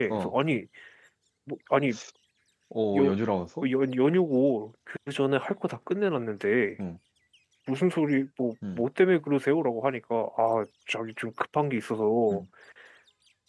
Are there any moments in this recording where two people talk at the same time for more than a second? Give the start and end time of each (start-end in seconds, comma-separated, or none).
none